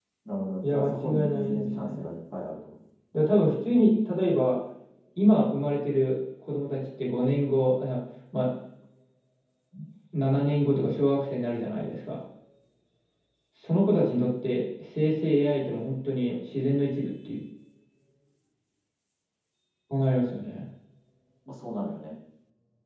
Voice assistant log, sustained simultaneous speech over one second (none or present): present